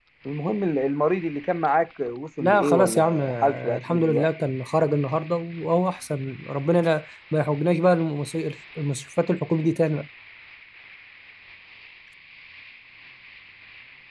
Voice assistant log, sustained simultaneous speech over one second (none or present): present